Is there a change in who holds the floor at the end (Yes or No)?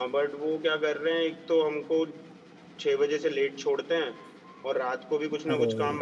No